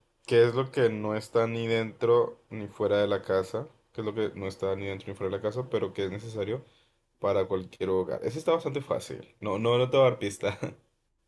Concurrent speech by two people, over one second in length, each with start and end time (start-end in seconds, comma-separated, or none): none